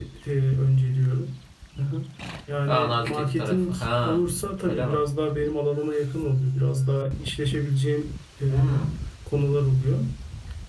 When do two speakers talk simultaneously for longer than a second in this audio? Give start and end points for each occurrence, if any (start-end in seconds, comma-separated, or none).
2.7-4.2